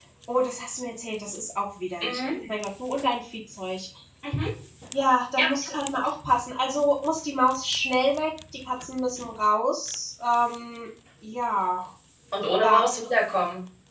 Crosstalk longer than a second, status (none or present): none